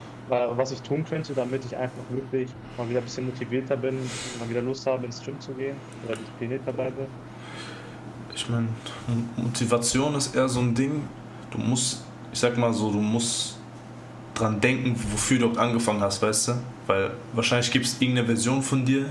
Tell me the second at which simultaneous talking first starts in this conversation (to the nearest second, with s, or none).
none